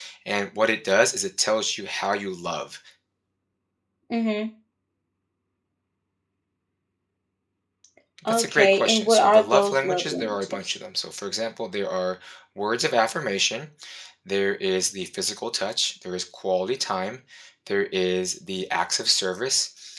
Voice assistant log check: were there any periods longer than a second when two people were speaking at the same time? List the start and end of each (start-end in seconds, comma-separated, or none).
8.3-10.7